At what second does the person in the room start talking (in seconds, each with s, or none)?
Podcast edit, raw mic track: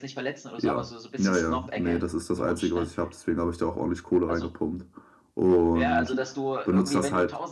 0.6 s